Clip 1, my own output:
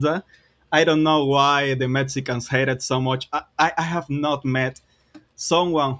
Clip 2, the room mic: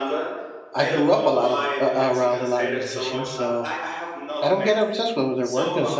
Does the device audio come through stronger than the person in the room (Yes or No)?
No